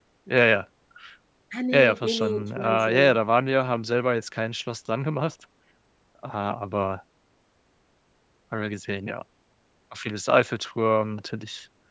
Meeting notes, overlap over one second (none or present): present